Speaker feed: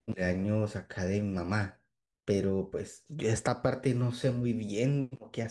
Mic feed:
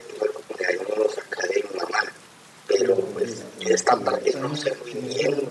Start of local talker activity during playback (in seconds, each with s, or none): 2.8 s